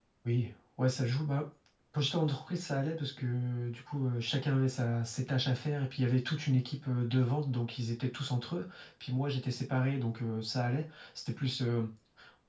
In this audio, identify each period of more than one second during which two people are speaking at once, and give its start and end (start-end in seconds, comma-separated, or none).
none